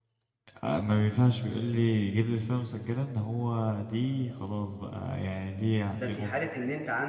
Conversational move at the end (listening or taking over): taking over